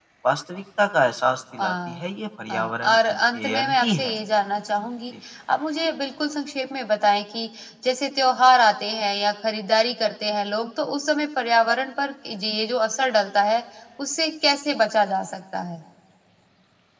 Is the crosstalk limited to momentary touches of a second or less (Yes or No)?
No